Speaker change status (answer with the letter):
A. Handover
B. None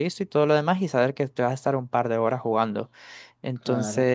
B